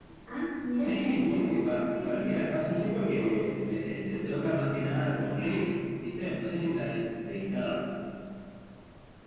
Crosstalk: present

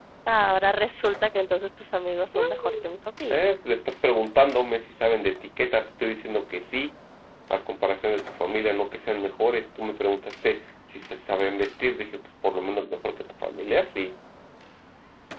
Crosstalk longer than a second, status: none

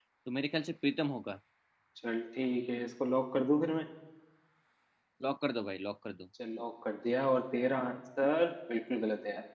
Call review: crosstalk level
none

